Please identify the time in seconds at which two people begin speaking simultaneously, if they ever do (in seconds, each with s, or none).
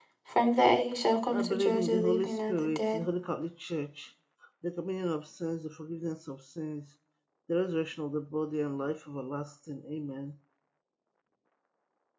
1.3 s